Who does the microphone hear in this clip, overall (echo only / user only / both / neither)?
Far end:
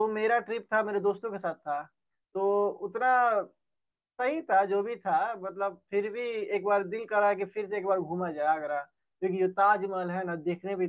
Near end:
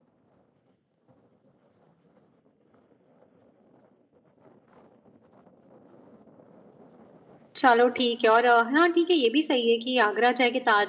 user only